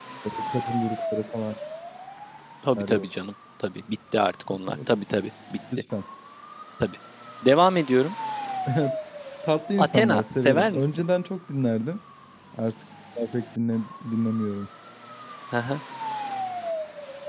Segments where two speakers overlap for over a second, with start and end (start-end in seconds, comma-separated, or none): 9.8-11.0